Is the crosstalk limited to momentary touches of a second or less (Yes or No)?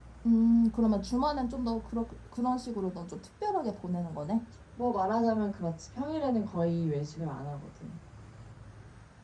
Yes